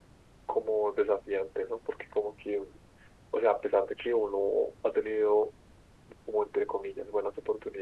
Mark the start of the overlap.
none

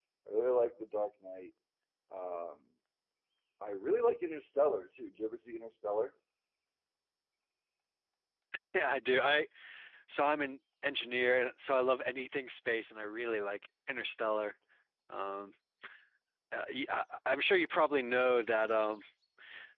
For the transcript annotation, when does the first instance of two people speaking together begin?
none

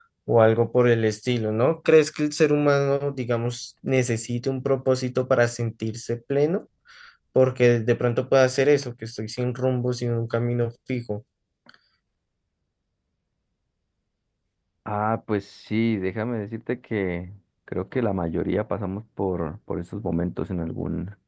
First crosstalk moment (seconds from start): none

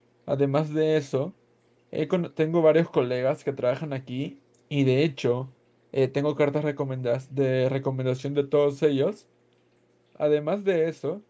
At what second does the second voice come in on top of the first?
none

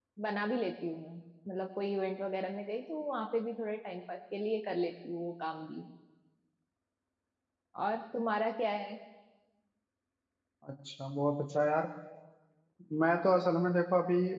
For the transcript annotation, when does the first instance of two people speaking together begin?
none

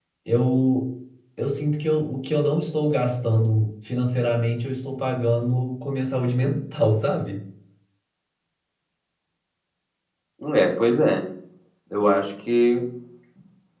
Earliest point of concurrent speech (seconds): none

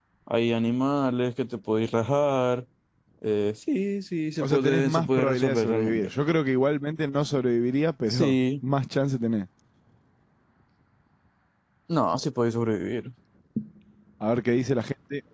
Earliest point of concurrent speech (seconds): 4.4 s

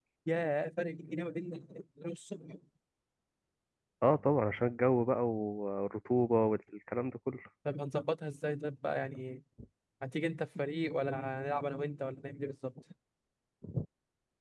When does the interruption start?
none

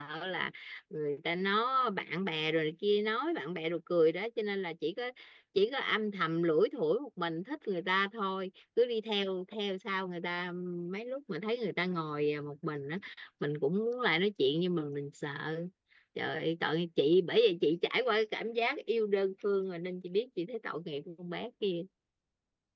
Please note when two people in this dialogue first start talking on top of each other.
none

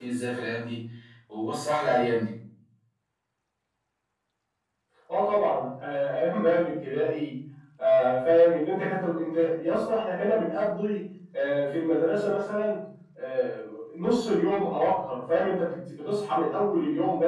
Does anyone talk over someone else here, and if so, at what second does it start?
none

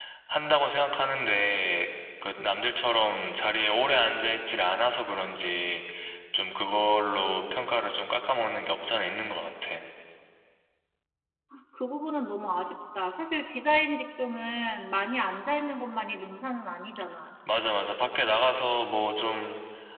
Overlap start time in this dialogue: none

